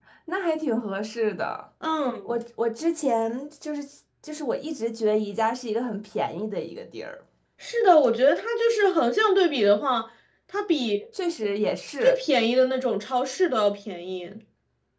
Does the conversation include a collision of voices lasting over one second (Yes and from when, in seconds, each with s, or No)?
No